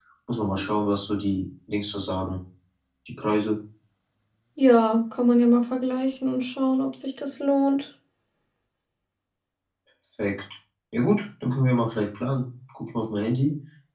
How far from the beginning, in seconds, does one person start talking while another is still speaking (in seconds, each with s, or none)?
none